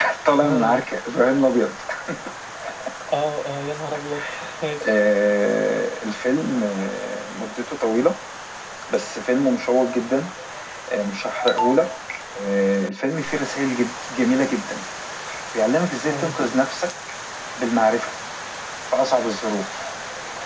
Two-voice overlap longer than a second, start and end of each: none

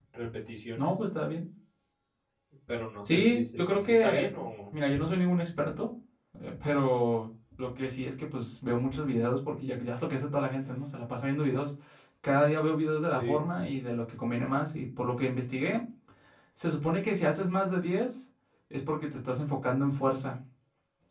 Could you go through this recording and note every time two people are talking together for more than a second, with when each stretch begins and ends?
3.1-4.3

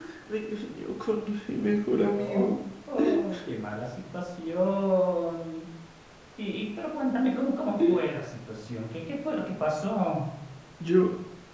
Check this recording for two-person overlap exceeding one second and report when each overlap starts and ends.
none

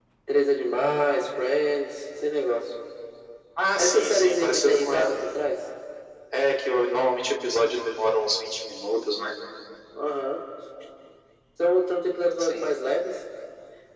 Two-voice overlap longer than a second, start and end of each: 3.8-5.1

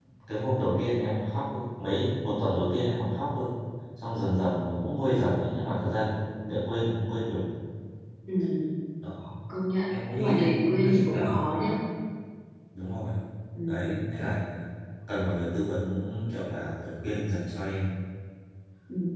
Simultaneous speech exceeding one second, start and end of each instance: 10.2-11.4

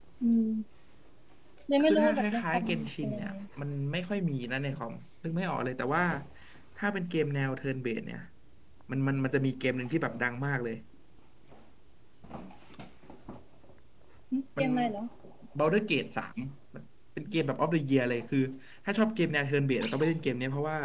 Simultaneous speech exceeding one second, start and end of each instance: 1.8-3.3

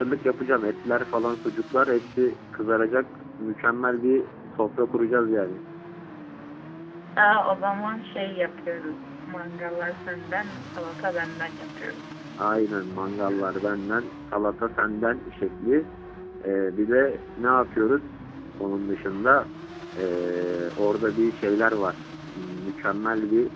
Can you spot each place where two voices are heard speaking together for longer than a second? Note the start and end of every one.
none

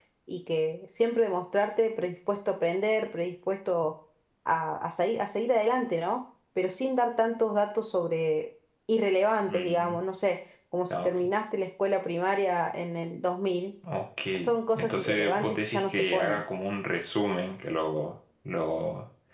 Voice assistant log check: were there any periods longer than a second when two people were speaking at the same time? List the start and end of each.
14.8-16.4

